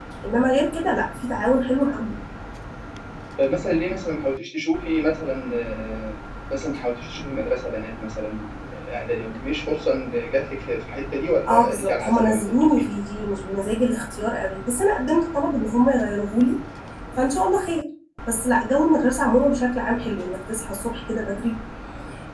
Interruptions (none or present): present